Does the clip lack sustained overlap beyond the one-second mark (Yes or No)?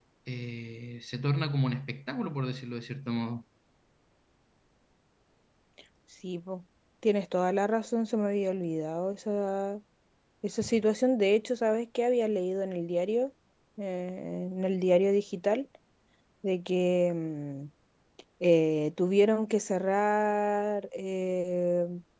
Yes